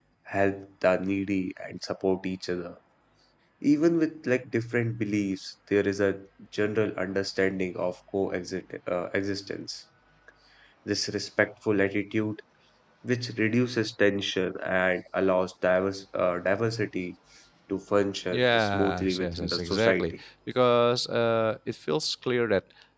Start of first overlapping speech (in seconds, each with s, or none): 18.3 s